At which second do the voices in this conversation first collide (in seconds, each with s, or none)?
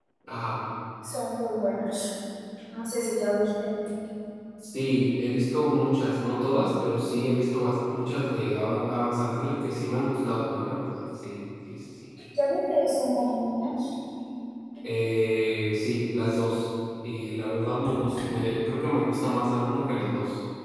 none